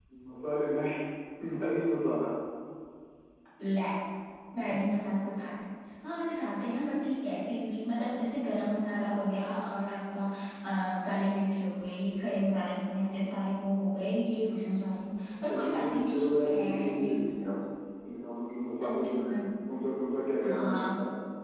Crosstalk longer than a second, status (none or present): present